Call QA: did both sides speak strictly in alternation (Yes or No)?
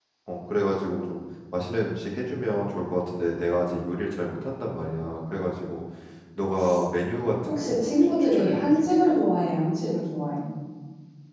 No